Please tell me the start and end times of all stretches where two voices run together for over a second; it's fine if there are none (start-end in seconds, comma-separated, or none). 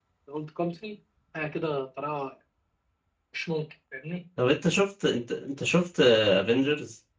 none